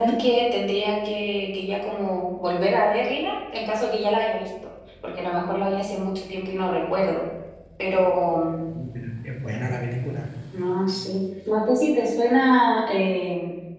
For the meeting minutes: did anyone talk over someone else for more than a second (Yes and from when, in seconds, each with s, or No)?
No